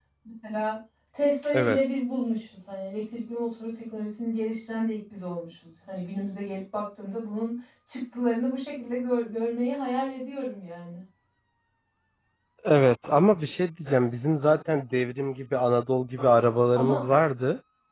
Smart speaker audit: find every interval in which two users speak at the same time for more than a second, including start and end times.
none

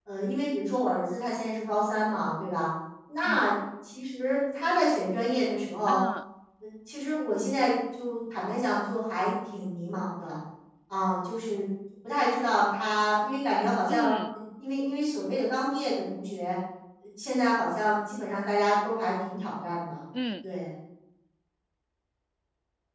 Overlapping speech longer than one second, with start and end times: none

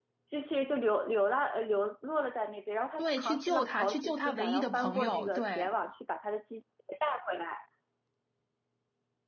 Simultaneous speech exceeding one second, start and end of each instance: 3.0-5.7

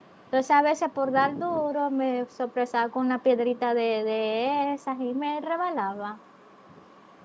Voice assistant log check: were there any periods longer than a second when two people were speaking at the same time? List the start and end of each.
none

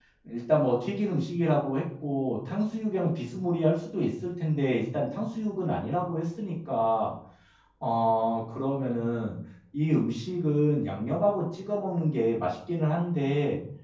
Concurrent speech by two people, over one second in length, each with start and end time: none

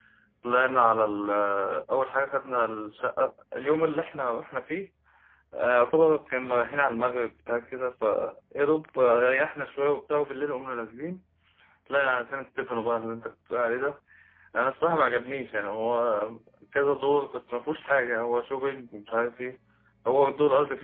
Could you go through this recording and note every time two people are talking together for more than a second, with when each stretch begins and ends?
none

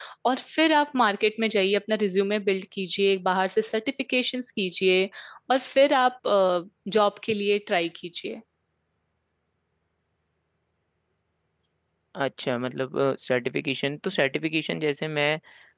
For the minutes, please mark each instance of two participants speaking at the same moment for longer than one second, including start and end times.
none

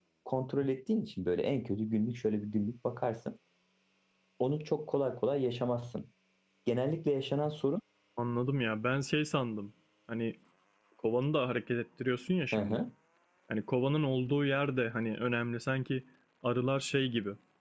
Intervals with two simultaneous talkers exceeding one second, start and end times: none

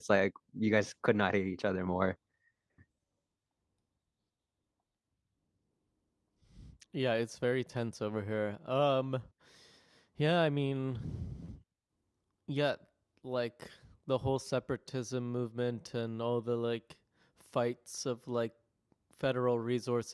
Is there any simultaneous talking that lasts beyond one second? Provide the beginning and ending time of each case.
none

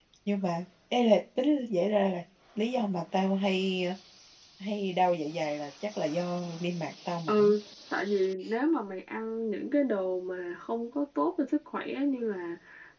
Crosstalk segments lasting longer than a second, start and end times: none

